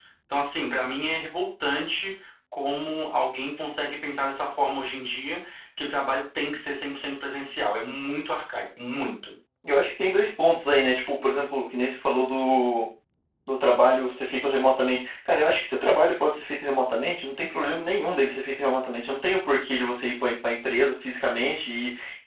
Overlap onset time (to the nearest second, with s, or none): none